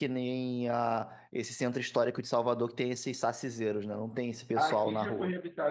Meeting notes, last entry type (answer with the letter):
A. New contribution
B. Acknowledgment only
A